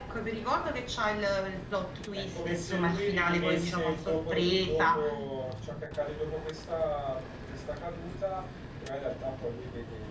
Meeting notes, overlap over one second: present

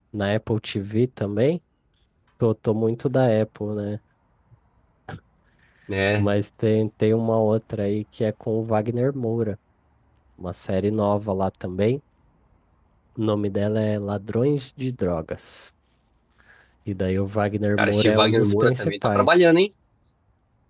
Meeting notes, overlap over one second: present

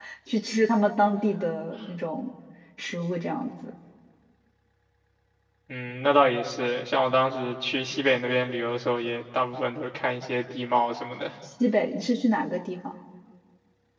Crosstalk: none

